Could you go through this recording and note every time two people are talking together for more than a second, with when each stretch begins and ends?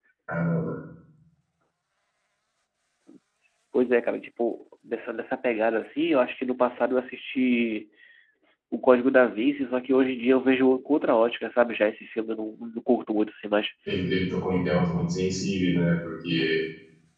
none

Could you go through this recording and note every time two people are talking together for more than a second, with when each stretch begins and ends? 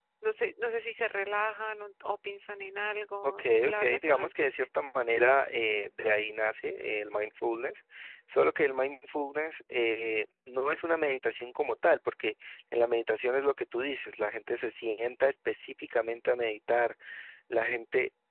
3.2-4.5

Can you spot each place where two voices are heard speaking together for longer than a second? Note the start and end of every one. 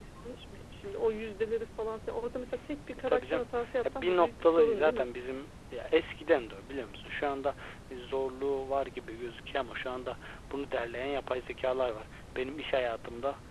3.8-5.1

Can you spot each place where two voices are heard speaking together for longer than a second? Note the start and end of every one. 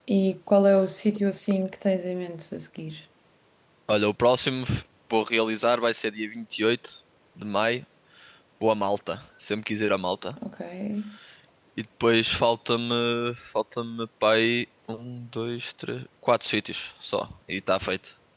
none

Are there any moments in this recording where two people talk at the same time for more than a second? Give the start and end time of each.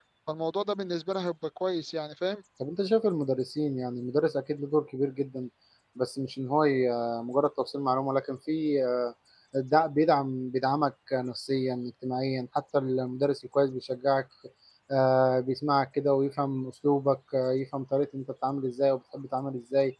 none

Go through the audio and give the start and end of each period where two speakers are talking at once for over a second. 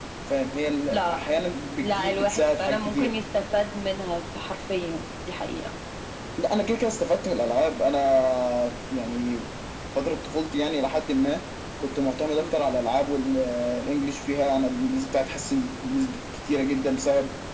1.8-3.1

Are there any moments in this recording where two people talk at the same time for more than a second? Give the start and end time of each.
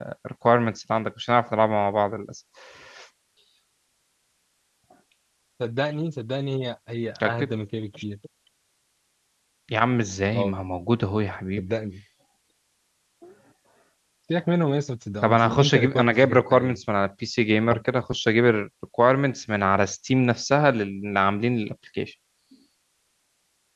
15.2-16.8

